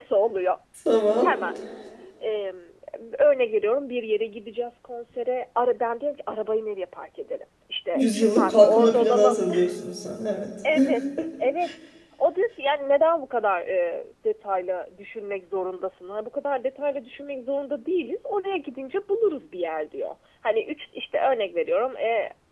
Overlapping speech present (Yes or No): Yes